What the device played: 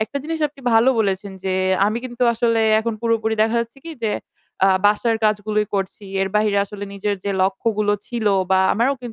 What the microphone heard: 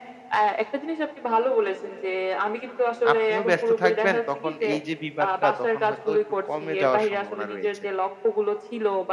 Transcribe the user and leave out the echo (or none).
আপনিও ব্যস্ত থাকবেন। তখন এই যে বিবাদটা তখন হয়তো একটু কমে যাওয়ার সম্ভাবনা রয়েছে।